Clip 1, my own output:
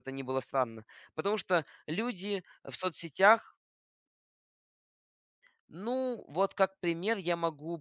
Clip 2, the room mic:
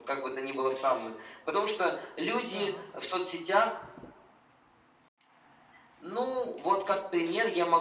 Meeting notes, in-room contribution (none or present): present